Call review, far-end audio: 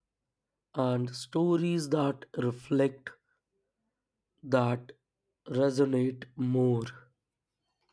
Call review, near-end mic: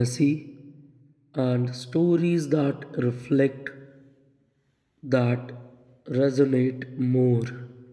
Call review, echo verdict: present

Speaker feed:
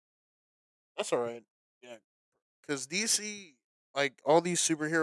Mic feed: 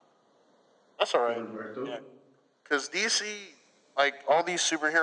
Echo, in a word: present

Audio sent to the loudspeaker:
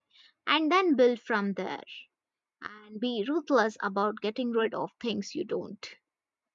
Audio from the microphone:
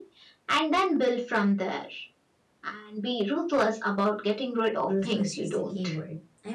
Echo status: present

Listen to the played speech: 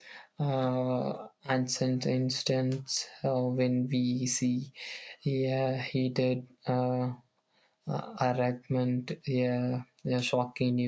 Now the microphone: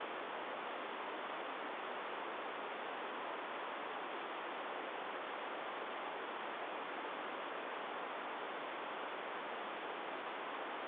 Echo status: none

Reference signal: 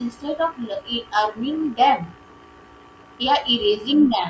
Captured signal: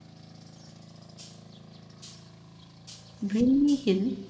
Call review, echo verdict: none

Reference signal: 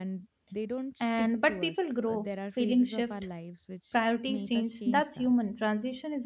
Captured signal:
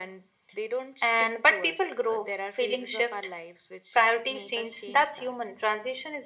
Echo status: present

